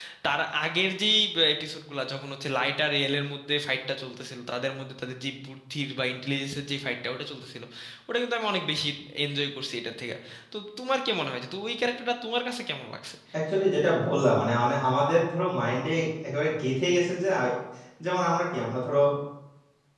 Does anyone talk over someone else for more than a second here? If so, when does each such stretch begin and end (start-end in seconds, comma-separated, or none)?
none